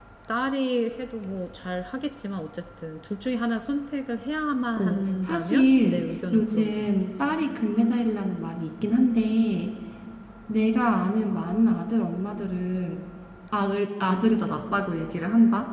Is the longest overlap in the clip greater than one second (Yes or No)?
Yes